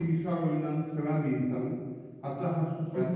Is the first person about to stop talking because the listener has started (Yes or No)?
No